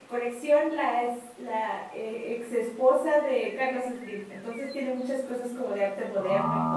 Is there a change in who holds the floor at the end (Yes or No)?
Yes